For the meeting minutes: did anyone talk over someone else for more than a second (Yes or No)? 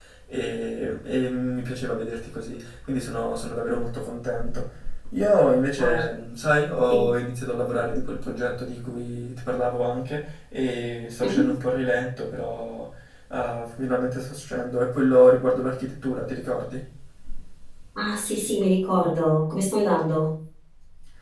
No